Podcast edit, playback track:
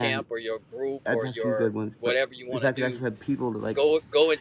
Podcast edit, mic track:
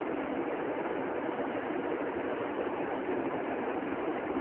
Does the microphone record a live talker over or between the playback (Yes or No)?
No